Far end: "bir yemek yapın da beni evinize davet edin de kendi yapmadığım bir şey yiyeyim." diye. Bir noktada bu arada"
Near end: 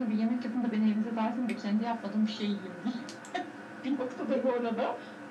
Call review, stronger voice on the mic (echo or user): echo